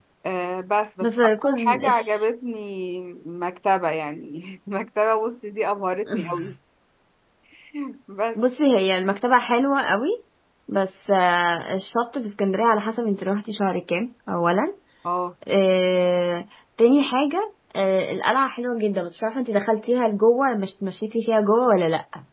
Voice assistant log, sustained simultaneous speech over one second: present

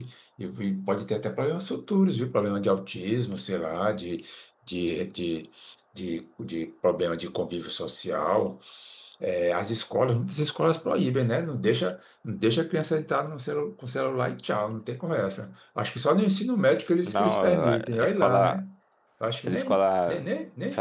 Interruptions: present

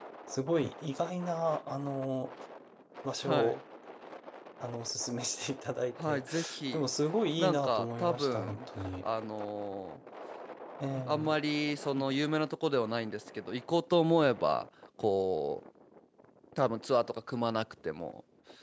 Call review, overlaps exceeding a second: present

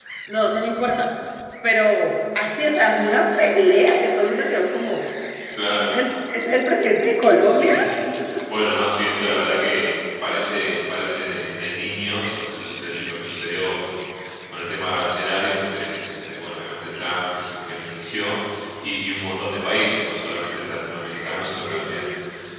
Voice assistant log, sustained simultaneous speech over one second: none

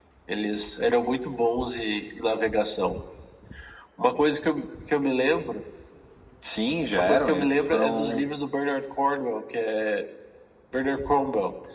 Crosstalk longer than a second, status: present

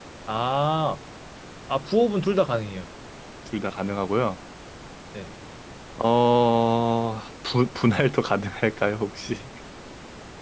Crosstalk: none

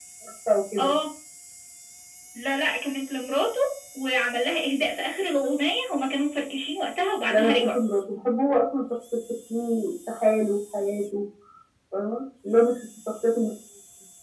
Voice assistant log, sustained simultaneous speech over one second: none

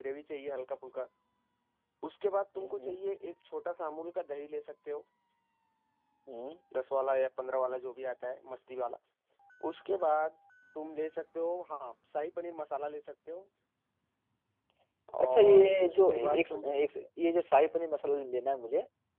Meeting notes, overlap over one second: present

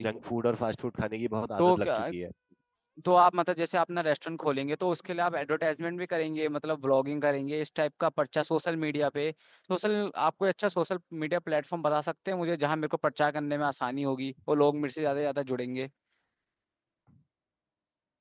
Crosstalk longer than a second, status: none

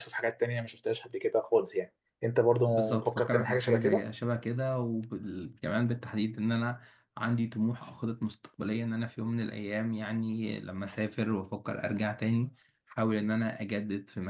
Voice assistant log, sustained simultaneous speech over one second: present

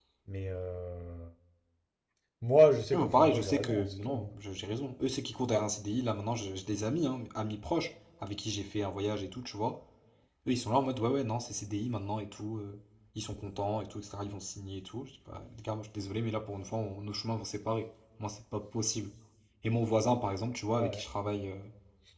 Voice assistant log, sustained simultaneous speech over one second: present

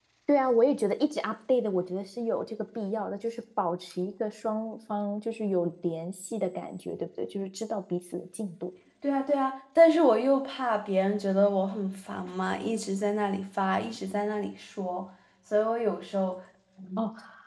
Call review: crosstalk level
none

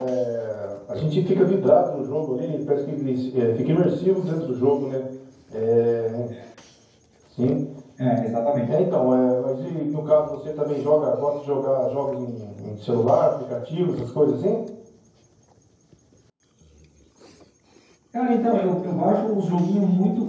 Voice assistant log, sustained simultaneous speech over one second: none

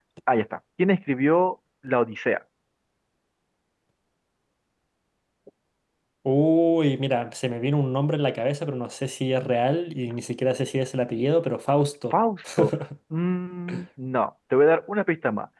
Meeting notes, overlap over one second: none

